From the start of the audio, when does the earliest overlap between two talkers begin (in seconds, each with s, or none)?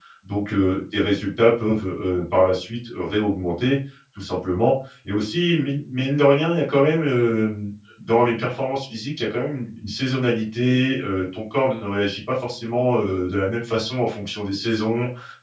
none